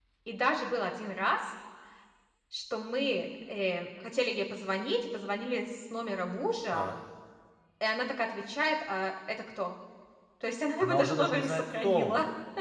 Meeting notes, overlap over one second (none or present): present